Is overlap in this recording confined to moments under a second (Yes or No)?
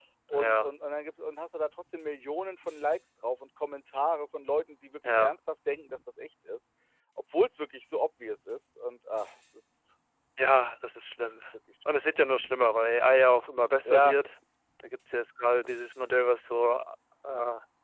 Yes